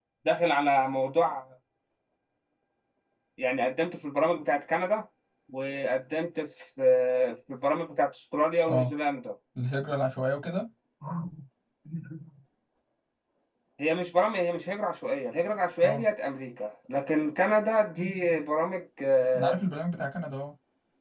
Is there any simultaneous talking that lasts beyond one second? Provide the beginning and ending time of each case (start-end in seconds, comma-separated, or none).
none